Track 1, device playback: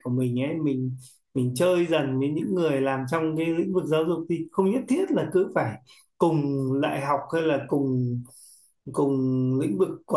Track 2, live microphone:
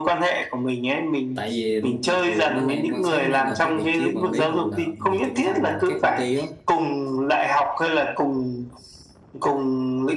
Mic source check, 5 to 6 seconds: both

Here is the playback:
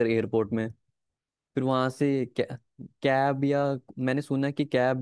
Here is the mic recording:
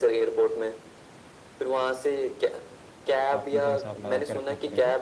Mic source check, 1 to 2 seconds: echo only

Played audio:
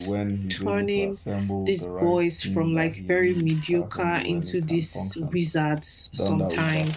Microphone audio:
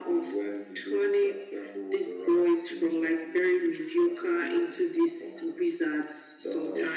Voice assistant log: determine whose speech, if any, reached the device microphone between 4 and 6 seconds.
echo only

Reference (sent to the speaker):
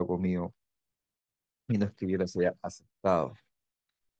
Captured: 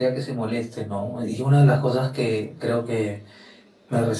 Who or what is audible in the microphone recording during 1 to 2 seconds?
user only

